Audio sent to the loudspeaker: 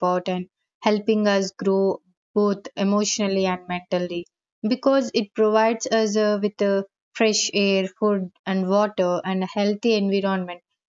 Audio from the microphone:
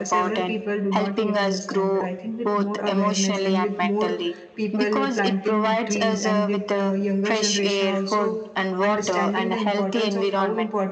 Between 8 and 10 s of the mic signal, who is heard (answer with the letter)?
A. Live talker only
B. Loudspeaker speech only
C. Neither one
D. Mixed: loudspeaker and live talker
D